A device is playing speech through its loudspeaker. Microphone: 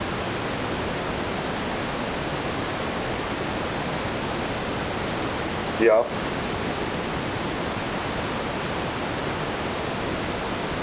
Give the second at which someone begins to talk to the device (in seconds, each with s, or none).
5.8 s